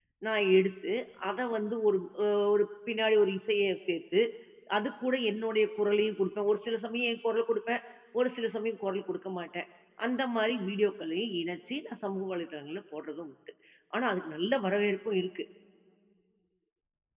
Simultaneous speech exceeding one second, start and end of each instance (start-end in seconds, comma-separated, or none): none